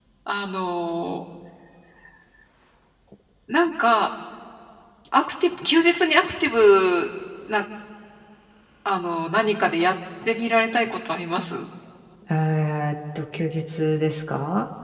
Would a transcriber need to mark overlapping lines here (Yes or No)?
No